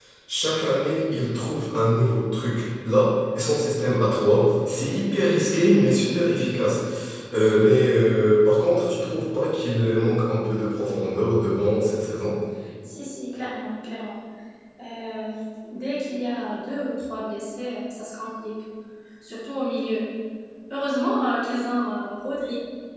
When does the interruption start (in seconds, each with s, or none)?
none